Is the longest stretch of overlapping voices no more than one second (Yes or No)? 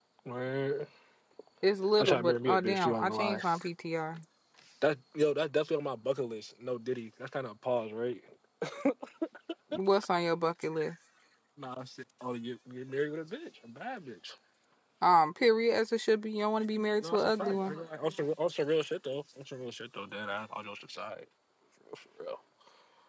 No